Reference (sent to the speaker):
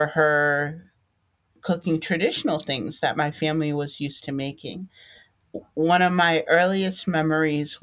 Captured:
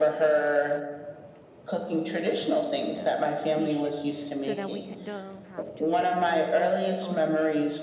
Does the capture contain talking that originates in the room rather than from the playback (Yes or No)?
Yes